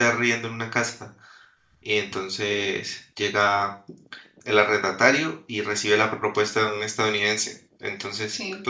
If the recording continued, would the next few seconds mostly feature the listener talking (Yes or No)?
No